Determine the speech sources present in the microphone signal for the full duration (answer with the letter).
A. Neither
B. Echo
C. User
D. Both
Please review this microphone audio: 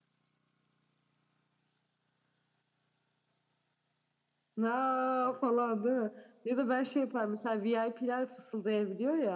B